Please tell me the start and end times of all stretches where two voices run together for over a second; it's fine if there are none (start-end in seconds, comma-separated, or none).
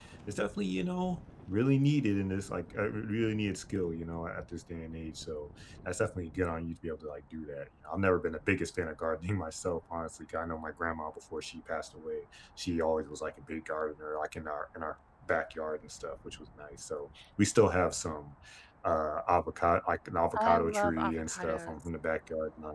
20.4-21.9